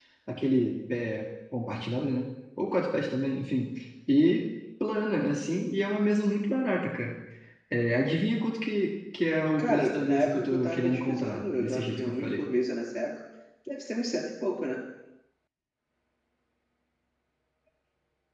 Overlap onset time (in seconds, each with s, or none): 9.6 s